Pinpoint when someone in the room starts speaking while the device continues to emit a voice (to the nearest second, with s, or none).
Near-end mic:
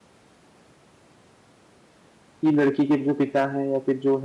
2 s